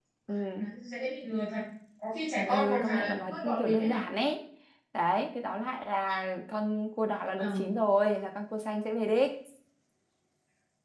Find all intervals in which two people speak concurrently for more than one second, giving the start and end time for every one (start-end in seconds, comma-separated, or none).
2.5-4.0